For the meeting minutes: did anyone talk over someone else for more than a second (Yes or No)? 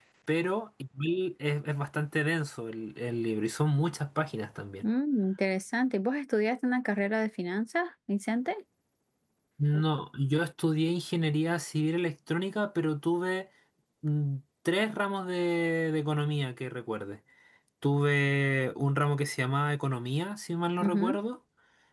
No